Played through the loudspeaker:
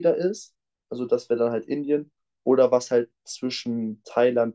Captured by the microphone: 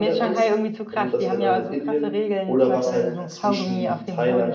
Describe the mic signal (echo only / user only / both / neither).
both